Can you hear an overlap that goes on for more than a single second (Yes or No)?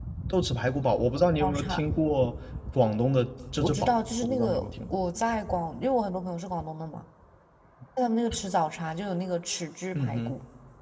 Yes